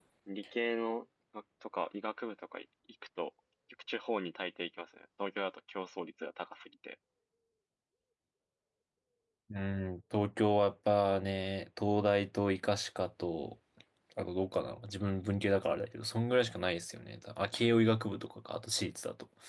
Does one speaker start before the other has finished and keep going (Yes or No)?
No